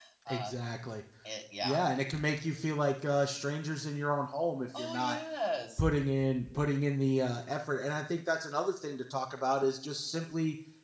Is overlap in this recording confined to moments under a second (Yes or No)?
Yes